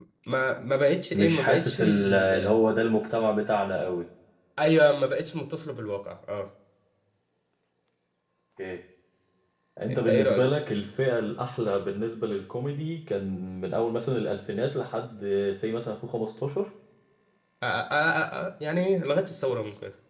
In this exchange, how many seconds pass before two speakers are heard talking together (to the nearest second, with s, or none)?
1 s